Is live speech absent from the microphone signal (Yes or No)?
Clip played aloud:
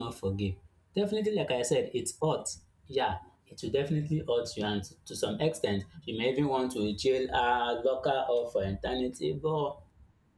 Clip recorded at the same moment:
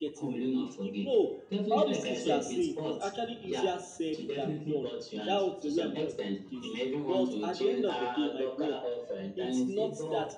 No